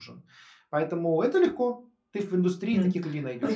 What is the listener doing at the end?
taking over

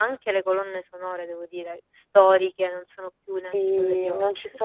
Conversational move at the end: taking over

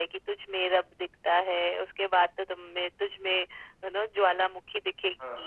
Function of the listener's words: taking over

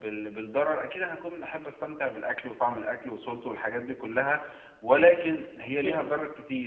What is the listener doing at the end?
listening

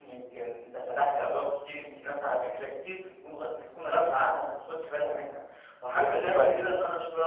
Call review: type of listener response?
listening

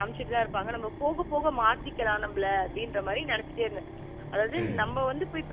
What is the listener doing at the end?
listening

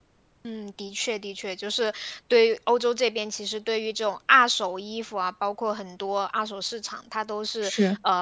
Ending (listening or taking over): listening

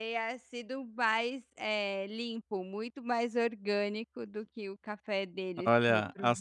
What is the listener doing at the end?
taking over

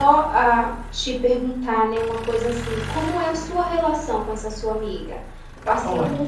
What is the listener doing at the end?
listening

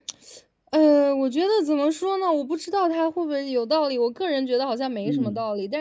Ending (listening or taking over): listening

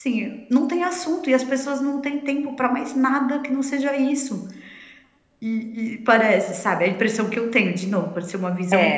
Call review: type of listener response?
taking over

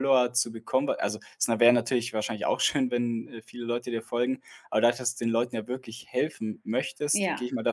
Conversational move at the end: listening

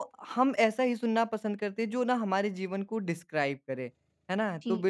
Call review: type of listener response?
listening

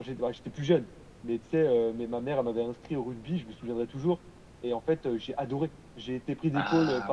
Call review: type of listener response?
listening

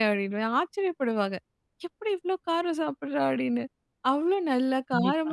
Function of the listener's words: listening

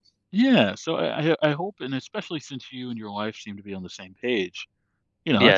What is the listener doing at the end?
taking over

